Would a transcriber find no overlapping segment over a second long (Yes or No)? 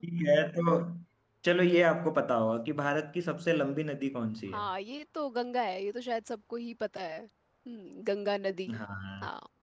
Yes